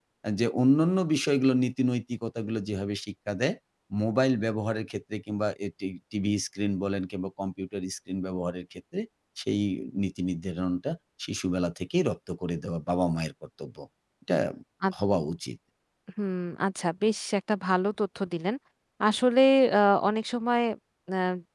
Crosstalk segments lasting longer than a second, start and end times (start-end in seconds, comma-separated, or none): none